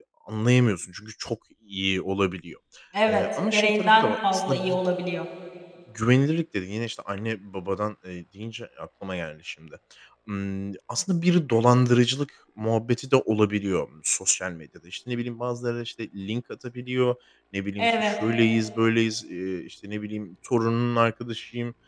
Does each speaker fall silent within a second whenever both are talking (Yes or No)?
No